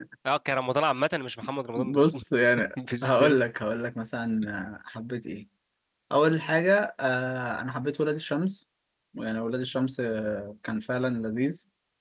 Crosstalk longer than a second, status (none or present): none